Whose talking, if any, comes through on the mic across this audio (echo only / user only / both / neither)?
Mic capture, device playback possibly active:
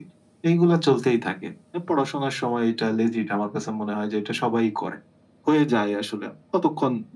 echo only